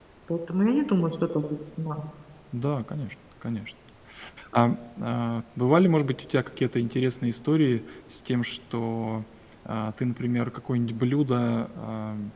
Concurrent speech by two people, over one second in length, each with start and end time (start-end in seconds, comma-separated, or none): none